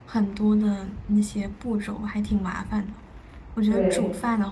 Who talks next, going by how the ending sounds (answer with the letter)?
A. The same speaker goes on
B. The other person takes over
A